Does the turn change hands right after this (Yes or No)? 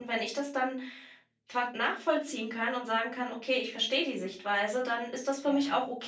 No